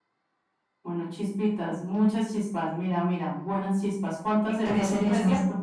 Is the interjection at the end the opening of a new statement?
Yes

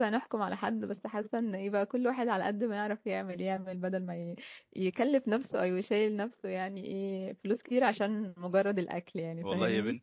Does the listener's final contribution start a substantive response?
Yes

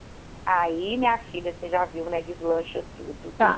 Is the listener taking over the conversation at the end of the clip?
Yes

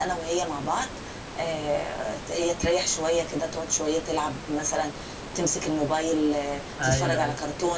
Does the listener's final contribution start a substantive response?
Yes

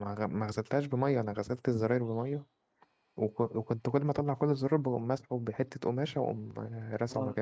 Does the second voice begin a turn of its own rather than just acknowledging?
Yes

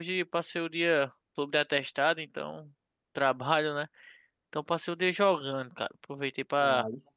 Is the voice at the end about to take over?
No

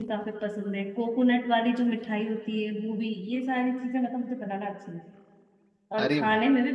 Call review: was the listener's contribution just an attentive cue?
Yes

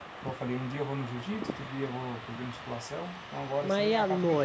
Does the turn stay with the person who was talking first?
No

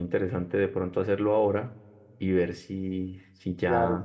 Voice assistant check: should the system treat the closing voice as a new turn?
Yes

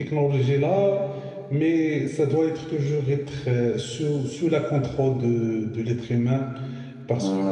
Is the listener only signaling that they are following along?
No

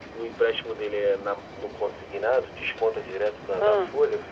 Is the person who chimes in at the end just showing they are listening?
Yes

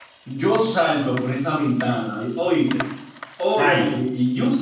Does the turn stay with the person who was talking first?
Yes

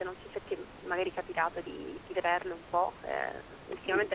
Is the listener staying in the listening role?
No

